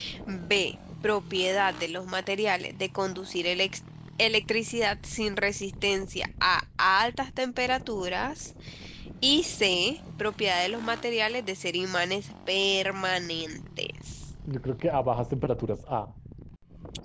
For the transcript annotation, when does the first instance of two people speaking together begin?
none

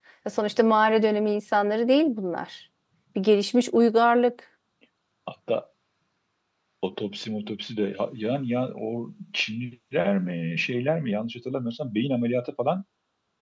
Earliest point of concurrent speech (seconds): none

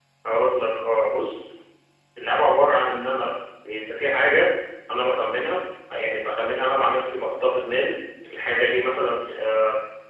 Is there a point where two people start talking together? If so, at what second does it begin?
none

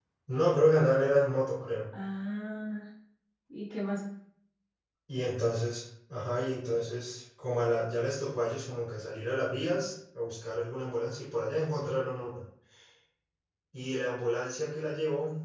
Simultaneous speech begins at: none

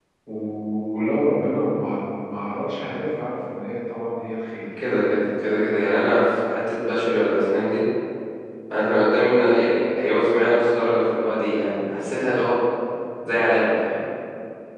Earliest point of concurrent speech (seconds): none

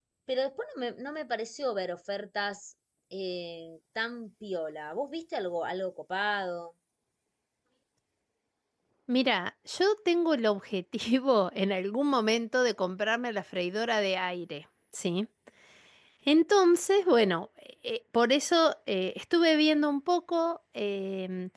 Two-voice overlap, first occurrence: none

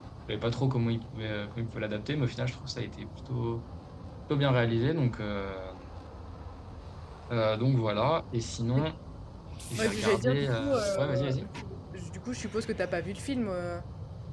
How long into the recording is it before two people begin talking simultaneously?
10 s

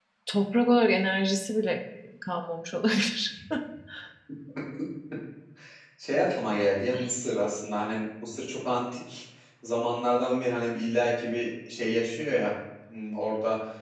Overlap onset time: none

